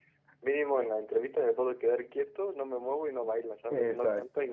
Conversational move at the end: taking over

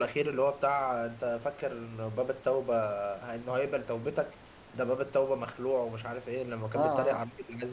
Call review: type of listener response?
listening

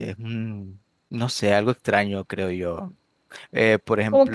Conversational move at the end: listening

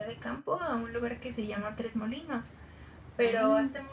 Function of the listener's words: listening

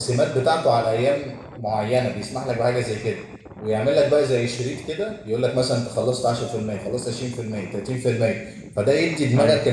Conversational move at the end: listening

